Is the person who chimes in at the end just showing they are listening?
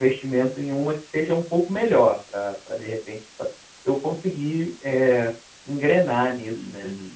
No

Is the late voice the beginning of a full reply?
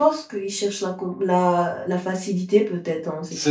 Yes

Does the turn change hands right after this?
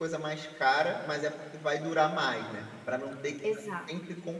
No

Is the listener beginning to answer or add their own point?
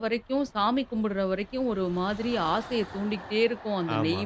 No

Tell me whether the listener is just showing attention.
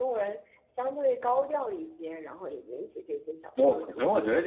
No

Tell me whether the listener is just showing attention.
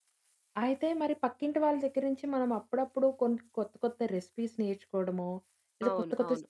Yes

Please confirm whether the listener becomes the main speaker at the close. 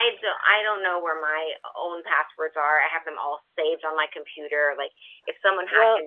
No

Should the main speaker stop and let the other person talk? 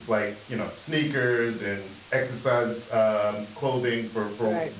No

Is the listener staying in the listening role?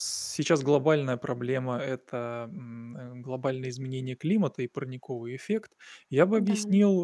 Yes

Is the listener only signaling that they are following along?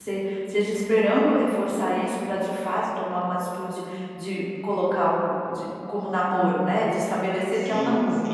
No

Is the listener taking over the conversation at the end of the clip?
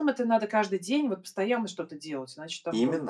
Yes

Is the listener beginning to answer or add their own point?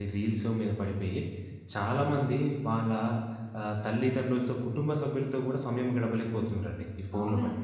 Yes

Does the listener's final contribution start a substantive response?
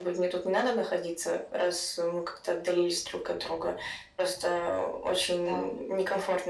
No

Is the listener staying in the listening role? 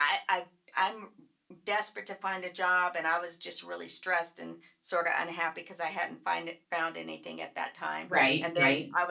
Yes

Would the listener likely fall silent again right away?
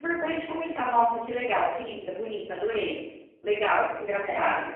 Yes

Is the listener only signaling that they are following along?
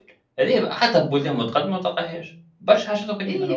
No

